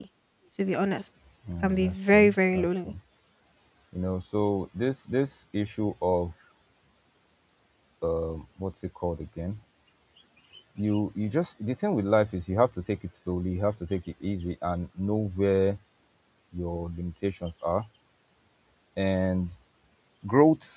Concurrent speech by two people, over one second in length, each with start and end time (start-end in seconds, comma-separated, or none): 1.6-2.9